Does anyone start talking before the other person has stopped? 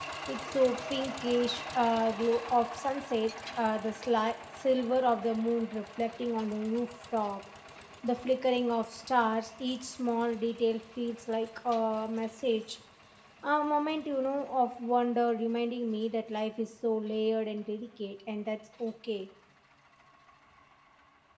No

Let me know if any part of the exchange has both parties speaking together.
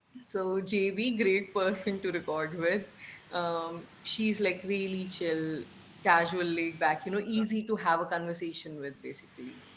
No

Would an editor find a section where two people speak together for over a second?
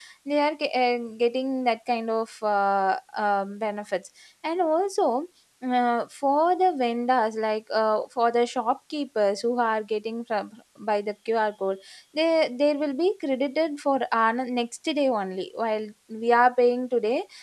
No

